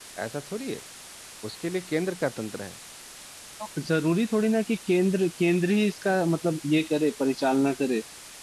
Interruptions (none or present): none